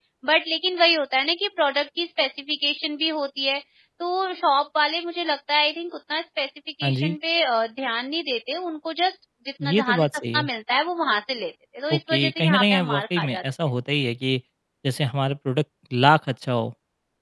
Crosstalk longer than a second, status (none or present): present